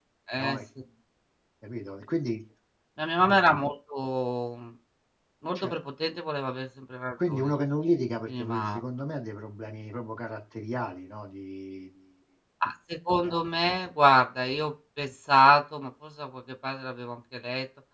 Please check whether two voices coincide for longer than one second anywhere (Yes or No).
No